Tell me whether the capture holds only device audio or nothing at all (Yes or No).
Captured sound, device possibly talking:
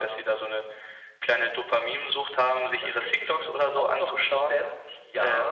Yes